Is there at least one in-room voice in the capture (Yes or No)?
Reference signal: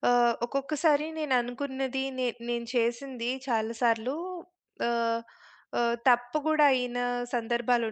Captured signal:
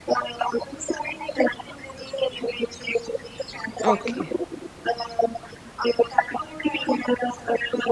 Yes